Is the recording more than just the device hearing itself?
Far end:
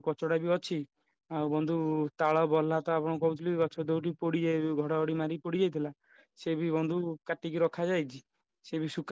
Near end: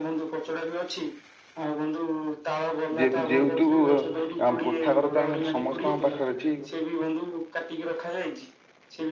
Yes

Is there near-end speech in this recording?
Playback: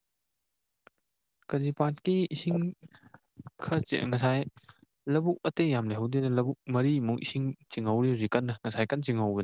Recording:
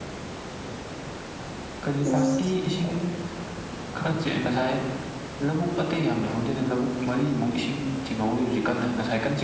Yes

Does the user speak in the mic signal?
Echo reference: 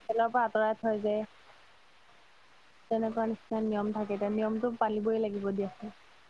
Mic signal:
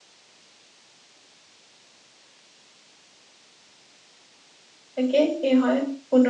Yes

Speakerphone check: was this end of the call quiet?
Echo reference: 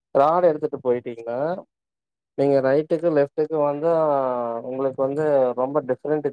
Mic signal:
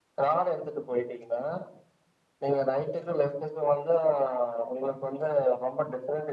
Yes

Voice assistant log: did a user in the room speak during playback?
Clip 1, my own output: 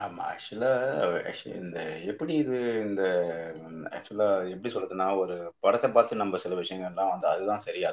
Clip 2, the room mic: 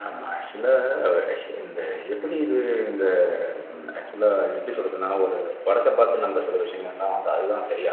No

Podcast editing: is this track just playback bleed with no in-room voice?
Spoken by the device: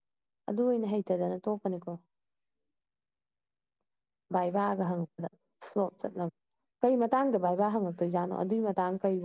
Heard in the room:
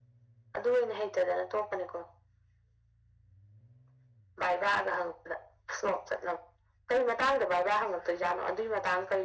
Yes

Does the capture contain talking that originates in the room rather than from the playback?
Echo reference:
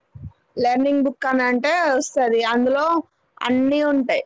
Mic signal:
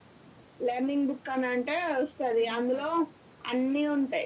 Yes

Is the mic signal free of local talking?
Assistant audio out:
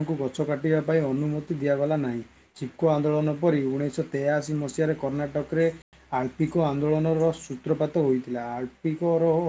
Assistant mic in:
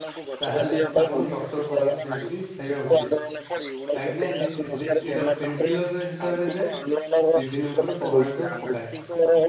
No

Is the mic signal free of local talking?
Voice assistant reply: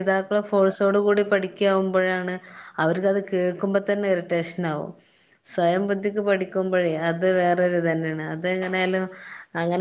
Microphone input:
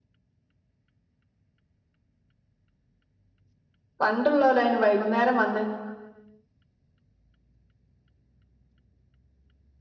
No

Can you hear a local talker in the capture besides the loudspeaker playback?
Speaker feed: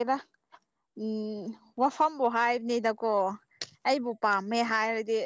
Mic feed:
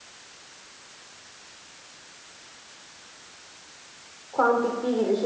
Yes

